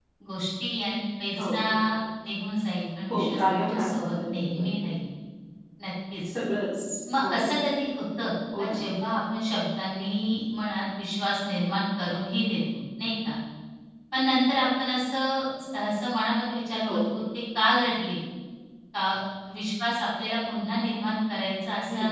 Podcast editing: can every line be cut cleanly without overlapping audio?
No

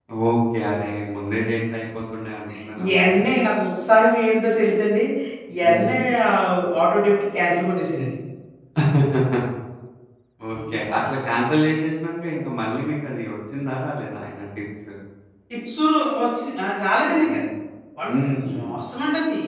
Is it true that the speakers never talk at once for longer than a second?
Yes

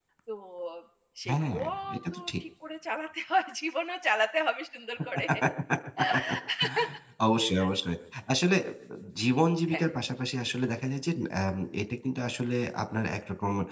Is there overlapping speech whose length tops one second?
No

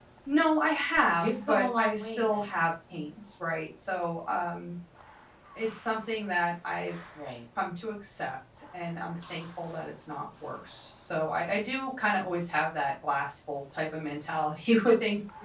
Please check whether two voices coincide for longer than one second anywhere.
Yes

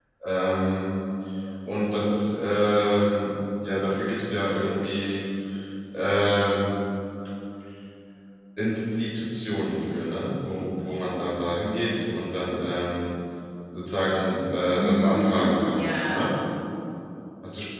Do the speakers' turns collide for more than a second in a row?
Yes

